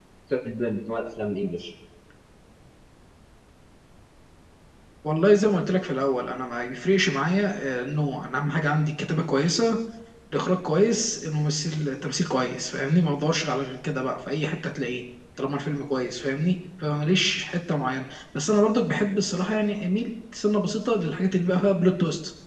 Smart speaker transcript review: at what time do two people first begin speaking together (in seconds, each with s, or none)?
none